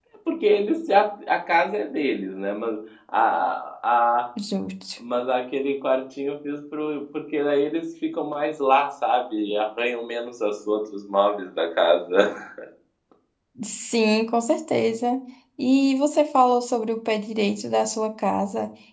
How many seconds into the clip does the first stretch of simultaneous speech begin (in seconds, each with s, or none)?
none